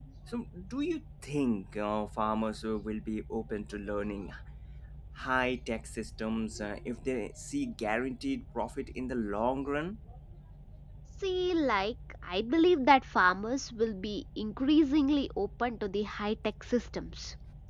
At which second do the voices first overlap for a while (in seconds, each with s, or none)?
none